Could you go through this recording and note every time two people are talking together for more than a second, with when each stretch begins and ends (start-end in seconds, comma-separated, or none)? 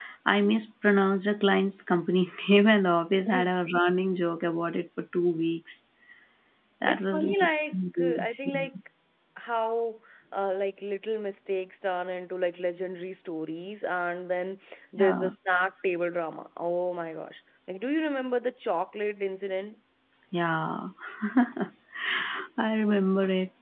6.8-8.7